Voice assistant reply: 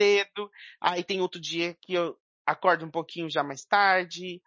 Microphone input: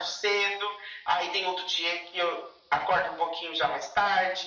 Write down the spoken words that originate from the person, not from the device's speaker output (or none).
none